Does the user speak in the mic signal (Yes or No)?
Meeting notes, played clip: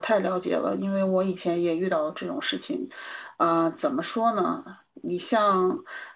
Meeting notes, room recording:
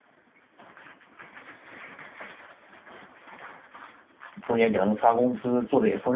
Yes